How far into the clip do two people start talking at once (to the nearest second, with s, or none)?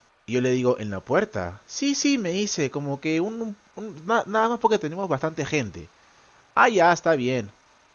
none